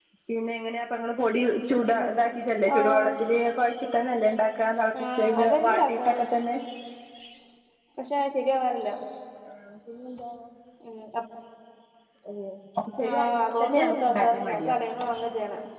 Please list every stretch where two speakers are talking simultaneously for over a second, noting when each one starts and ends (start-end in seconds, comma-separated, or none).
5.0-6.2, 13.1-14.8